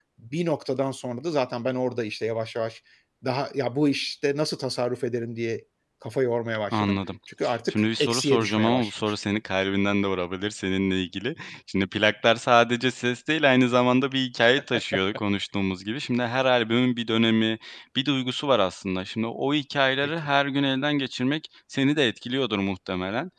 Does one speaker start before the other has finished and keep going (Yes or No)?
Yes